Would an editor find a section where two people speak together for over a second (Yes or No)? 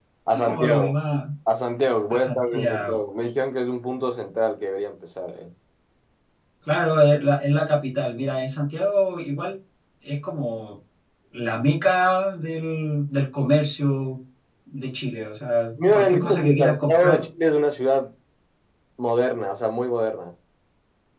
Yes